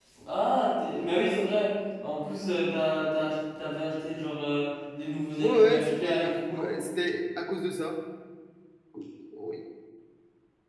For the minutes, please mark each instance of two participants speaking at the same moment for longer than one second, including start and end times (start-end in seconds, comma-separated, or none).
5.4-6.7